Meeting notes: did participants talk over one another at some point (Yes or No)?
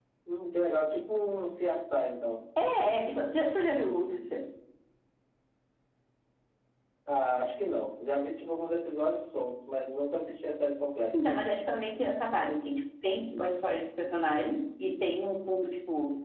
No